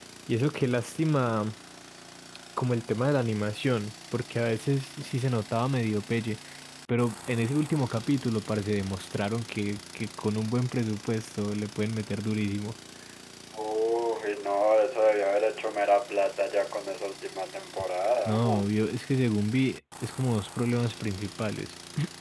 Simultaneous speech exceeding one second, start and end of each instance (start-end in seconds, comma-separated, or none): none